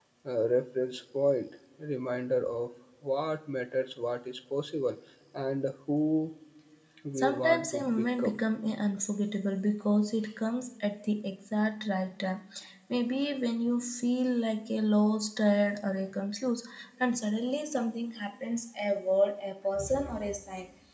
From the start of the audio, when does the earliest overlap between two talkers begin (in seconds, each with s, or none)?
7.2 s